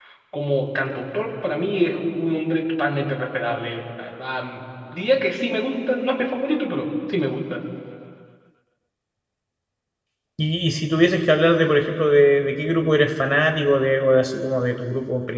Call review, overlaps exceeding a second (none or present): none